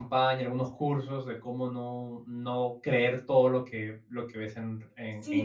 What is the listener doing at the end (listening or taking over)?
taking over